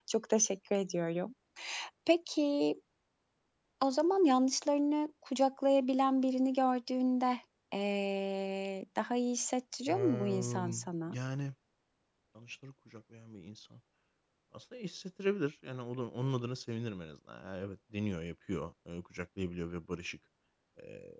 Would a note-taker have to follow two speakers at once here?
Yes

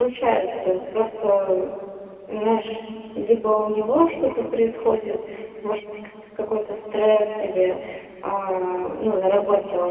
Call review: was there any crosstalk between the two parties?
No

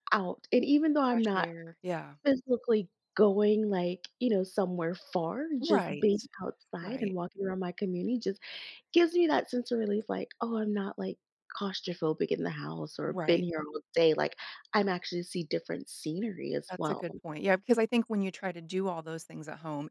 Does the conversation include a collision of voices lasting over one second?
No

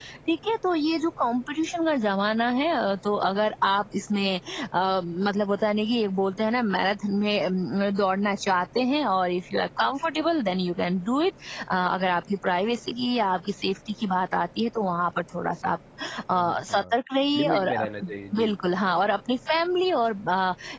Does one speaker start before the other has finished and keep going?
Yes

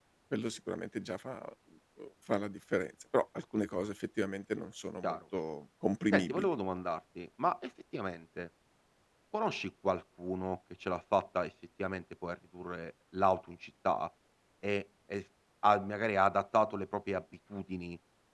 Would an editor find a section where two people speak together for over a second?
No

